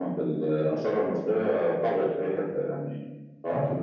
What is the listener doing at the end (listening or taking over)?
listening